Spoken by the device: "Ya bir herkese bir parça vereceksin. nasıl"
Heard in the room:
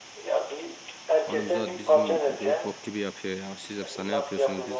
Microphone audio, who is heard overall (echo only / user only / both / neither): both